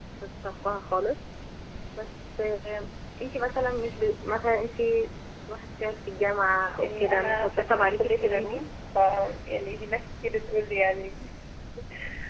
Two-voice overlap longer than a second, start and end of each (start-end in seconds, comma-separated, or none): 6.8-8.6